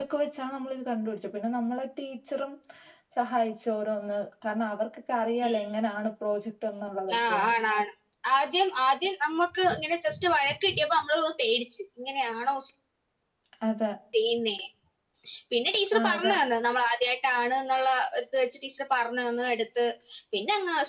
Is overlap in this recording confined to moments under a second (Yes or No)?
Yes